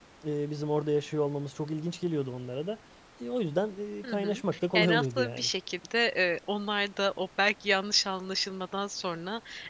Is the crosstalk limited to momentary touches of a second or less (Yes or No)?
No